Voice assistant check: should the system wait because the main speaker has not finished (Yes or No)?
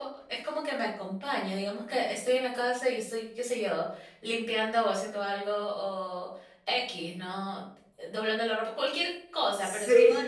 Yes